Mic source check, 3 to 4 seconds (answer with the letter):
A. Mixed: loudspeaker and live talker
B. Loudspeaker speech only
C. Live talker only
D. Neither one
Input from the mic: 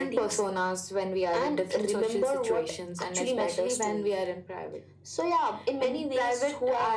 B